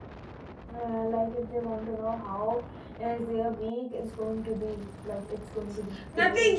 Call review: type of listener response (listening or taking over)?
taking over